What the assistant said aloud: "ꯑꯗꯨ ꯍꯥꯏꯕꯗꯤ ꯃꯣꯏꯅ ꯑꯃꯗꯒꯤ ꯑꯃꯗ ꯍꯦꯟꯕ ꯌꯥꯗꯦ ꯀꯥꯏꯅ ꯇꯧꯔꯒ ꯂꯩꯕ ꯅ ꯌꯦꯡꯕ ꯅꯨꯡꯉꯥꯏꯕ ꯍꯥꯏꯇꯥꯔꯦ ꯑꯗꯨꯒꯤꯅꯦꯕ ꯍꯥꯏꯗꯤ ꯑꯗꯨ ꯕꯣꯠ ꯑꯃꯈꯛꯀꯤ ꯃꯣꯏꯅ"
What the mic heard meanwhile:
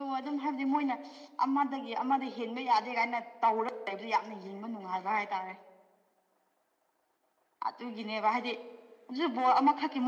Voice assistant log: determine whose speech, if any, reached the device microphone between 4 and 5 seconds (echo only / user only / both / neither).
echo only